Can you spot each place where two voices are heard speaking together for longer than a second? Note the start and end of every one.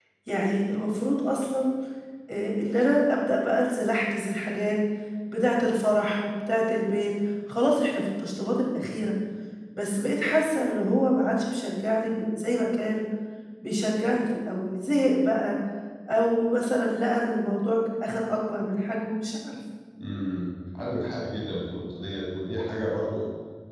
none

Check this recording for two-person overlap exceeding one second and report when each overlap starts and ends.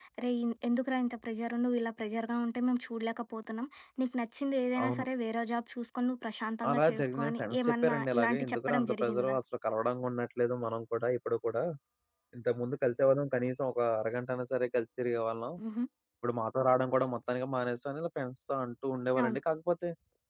6.7-9.4

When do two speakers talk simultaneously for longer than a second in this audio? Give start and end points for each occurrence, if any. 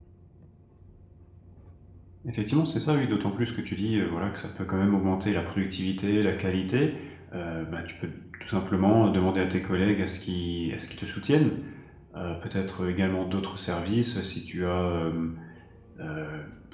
none

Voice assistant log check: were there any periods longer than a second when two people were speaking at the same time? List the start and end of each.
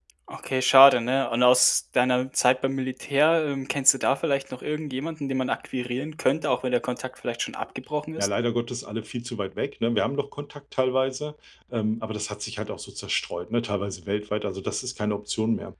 none

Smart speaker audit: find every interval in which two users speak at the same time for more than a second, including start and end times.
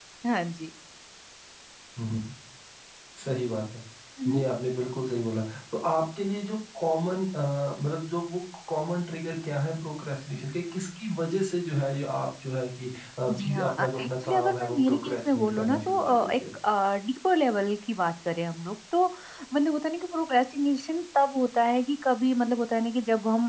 13.4-16.3

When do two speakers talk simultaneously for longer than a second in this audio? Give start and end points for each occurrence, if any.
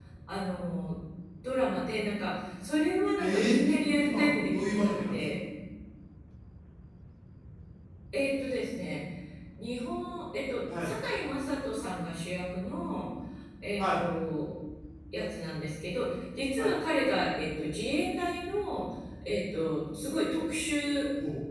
3.2-5.2

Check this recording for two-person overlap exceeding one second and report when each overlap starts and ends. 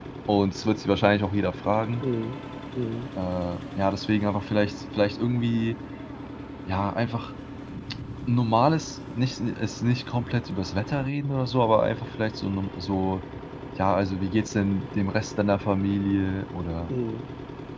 none

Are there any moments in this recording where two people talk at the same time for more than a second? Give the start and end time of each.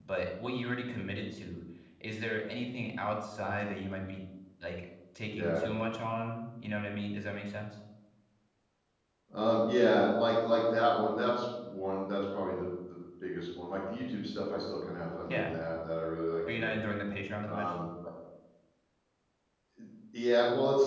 none

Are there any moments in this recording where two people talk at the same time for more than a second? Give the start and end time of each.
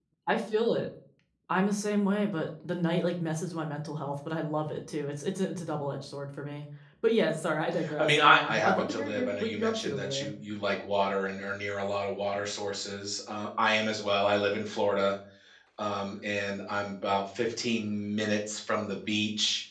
8.0-10.3

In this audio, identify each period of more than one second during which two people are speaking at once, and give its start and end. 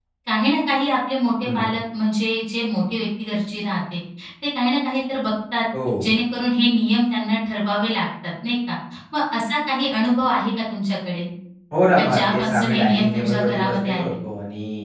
12.0-14.1

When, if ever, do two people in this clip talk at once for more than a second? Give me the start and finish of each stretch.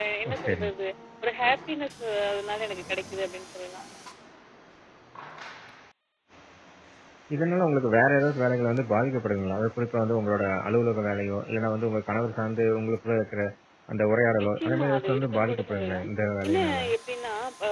14.4-16.1

